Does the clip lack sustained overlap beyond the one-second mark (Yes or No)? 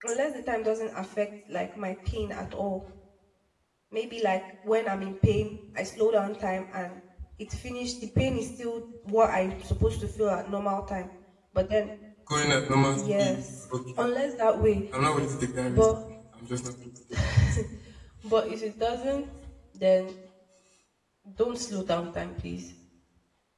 Yes